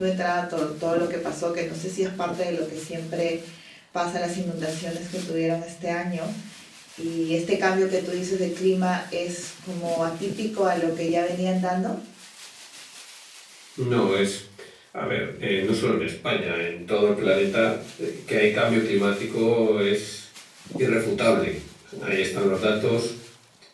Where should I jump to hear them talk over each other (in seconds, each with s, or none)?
none